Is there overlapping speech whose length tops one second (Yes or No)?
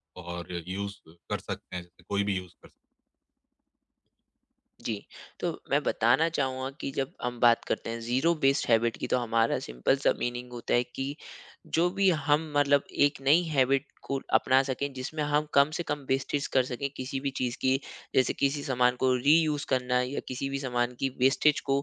No